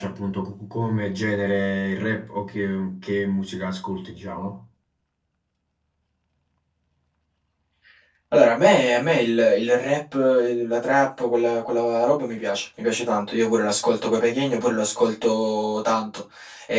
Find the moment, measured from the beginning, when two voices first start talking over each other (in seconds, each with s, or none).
none